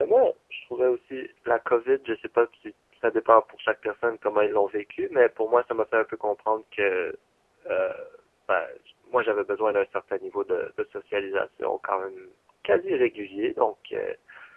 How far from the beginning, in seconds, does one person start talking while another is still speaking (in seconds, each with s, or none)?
none